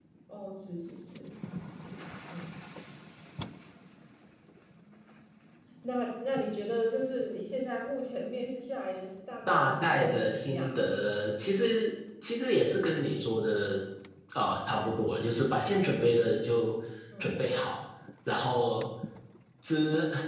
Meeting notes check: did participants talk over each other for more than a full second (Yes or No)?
Yes